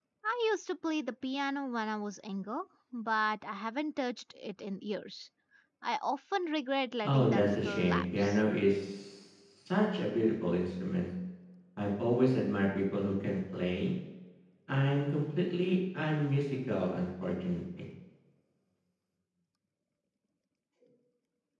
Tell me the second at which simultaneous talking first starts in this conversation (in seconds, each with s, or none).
7.0 s